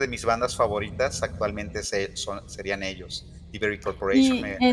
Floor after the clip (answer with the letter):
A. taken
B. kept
A